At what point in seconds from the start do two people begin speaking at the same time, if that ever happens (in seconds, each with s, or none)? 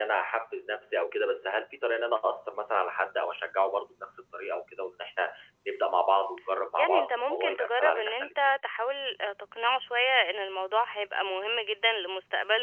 6.8 s